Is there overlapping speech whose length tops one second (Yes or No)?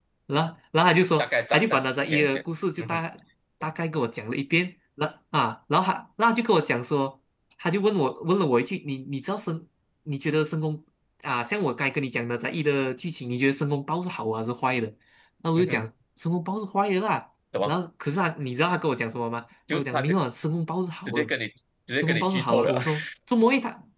Yes